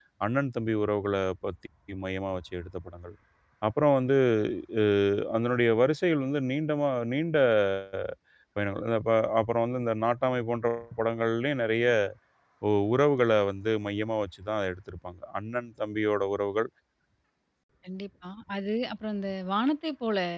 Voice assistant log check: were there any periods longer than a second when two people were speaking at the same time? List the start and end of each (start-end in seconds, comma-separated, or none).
none